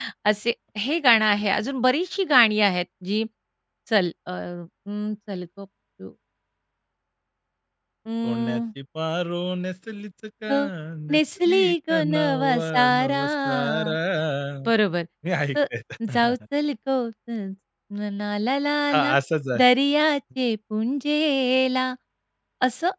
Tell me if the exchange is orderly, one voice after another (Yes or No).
No